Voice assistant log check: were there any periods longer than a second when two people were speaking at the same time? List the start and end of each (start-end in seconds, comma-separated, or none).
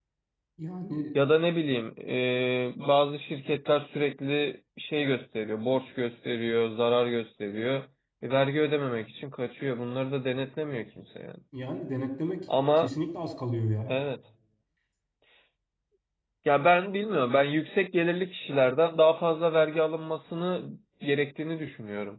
none